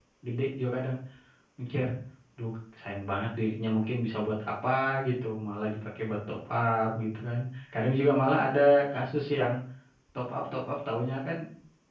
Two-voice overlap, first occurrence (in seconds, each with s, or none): none